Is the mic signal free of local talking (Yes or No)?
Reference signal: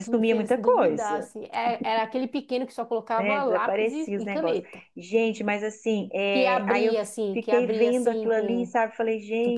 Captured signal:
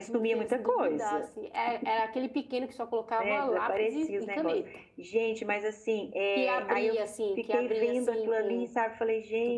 Yes